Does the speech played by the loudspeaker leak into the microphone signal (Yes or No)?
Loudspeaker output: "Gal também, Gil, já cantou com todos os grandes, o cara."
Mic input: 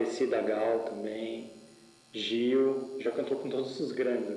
Yes